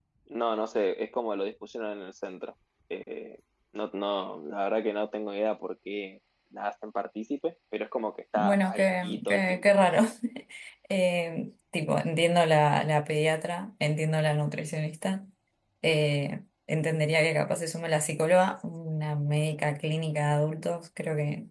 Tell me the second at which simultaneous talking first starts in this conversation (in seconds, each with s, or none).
8.3 s